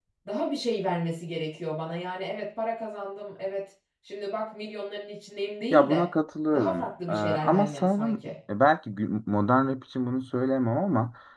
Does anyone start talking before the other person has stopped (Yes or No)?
Yes